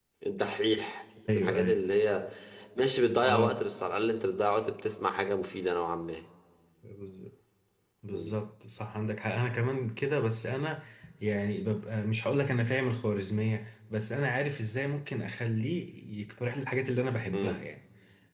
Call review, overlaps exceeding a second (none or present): none